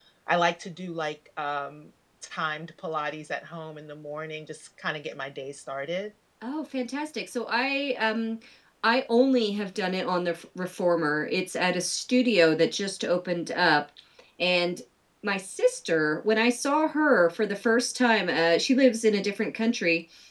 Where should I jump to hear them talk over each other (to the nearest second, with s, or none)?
none